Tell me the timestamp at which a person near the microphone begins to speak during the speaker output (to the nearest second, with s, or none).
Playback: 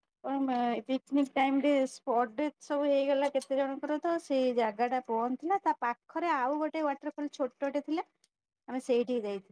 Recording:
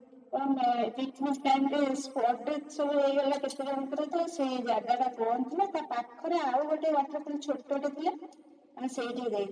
none